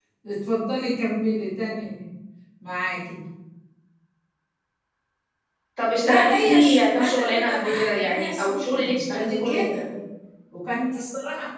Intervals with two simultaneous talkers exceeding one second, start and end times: 6.0-9.8

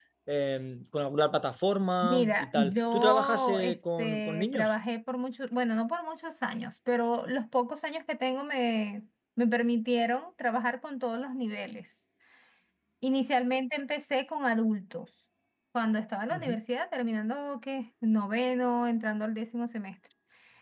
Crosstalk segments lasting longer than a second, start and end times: 2.0-4.7

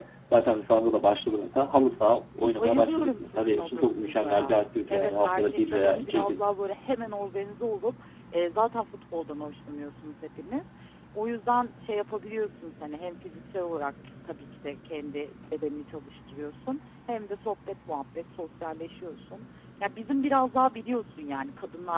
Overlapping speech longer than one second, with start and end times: 2.4-4.5, 4.9-6.4

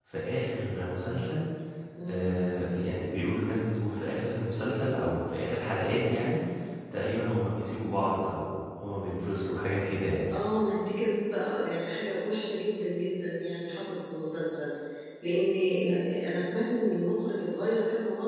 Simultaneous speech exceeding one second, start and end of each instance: none

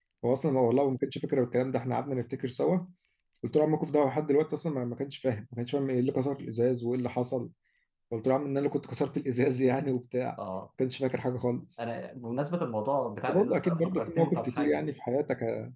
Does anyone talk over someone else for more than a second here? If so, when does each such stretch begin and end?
13.3-14.8

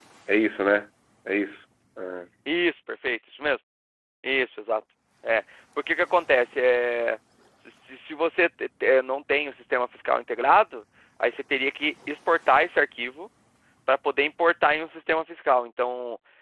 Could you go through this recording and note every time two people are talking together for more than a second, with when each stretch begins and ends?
none

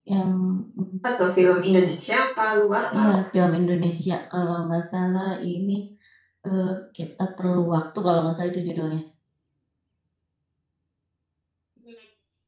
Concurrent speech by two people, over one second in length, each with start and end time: none

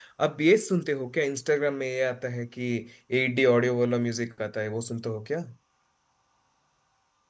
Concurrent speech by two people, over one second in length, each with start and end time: none

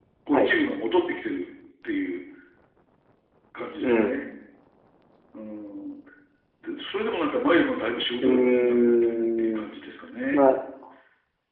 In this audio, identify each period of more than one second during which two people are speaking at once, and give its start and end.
8.2-9.7

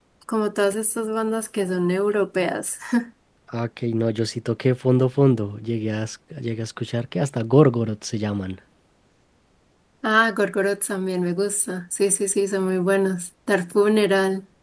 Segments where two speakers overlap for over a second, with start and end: none

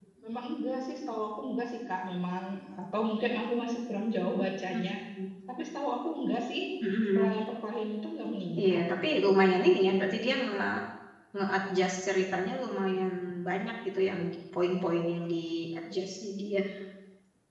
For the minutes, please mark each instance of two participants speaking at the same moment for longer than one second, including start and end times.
none

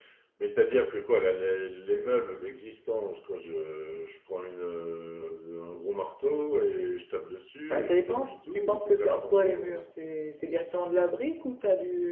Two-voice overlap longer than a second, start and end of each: 7.7-9.8

